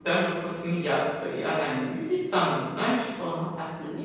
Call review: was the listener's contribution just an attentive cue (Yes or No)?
No